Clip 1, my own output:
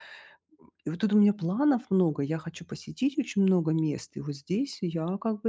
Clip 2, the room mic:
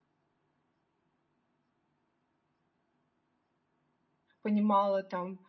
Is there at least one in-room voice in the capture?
Yes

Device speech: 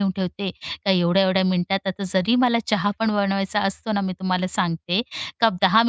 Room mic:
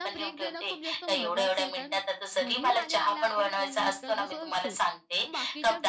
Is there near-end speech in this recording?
Yes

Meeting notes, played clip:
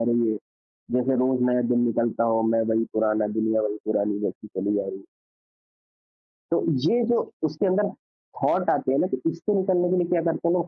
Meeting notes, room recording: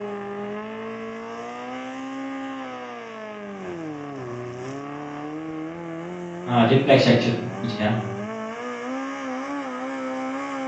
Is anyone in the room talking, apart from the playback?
Yes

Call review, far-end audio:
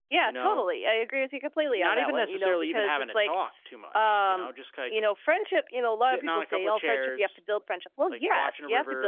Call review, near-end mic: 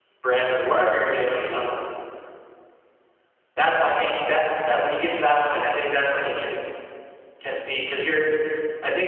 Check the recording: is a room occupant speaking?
Yes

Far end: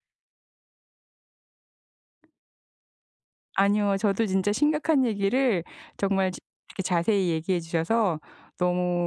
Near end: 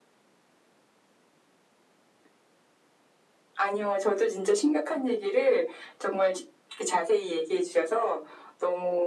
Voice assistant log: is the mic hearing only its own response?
Yes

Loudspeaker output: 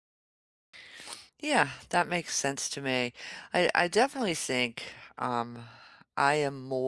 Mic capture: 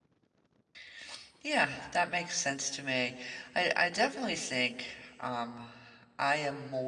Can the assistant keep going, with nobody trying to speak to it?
Yes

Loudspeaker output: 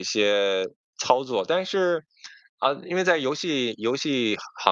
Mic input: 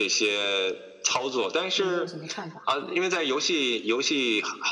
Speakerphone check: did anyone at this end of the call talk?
Yes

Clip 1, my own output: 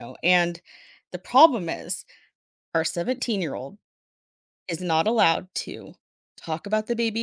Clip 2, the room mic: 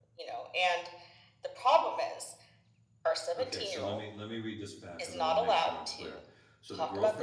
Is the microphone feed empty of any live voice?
No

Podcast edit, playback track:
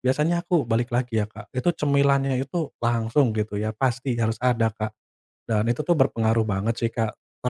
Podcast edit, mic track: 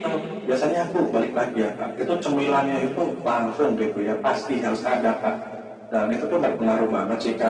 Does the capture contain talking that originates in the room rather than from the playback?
Yes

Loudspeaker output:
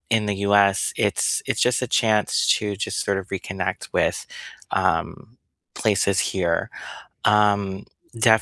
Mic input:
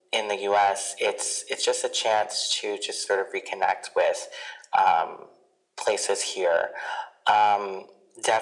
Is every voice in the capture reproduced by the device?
Yes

